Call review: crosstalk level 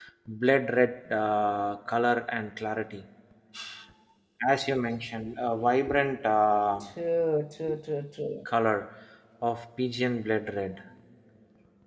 none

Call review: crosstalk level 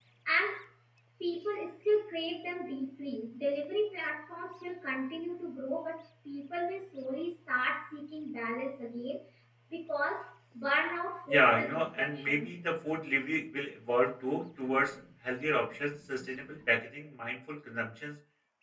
present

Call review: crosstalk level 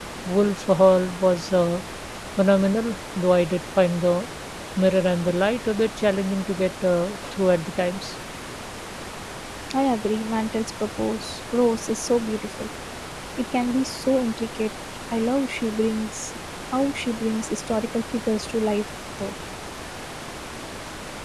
none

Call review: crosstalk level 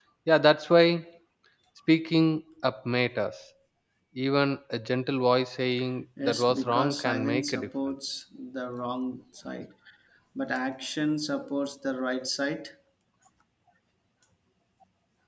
present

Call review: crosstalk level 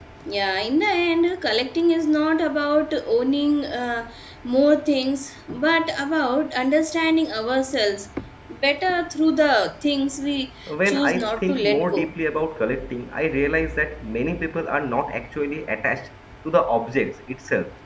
present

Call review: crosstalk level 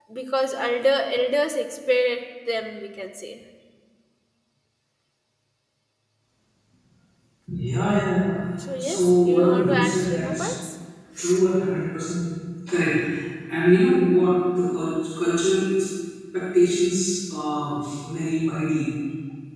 present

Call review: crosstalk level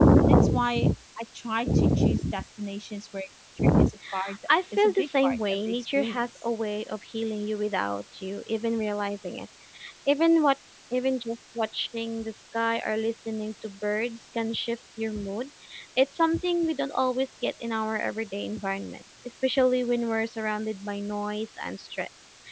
present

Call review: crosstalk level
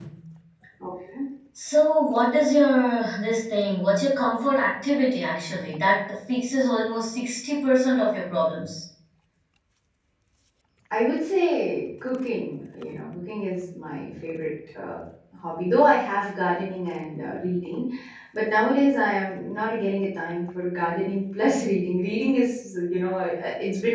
none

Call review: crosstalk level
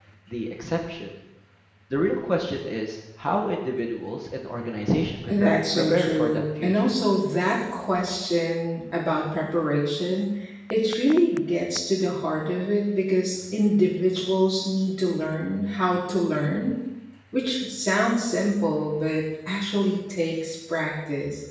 present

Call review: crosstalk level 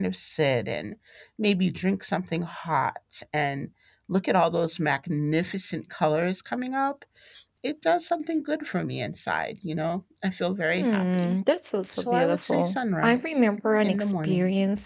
present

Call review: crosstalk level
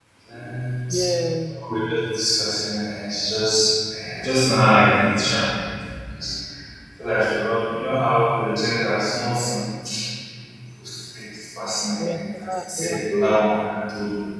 present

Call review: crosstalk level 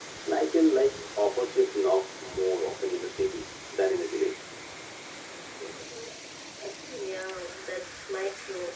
none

